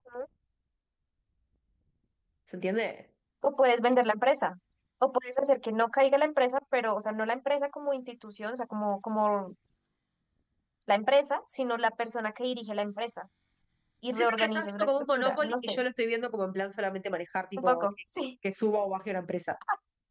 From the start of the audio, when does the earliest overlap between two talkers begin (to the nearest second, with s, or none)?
14 s